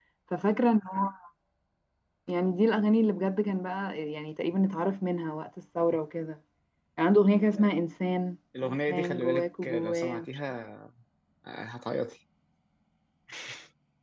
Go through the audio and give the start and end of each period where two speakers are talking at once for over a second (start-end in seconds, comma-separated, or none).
8.6-10.2